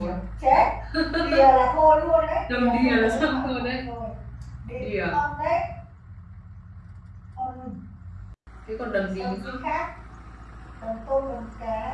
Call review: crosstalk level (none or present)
present